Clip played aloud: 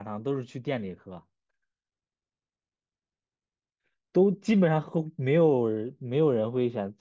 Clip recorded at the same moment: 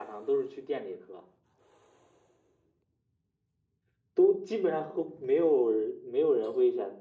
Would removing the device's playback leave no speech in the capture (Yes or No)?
Yes